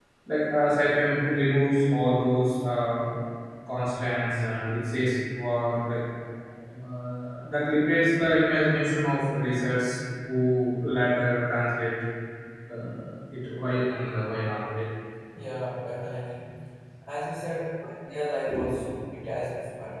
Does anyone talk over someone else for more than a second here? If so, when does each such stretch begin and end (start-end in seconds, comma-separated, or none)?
none